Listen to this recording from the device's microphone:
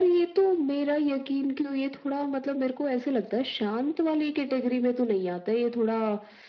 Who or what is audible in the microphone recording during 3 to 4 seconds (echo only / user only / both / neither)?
echo only